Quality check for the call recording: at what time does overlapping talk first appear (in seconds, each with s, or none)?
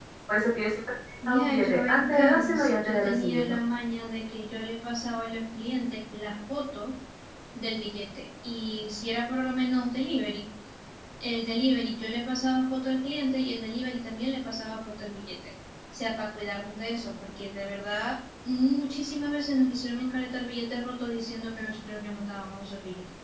1.3 s